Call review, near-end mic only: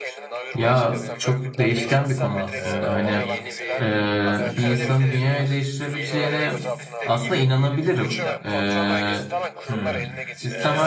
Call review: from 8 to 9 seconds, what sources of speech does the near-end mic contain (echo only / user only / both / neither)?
both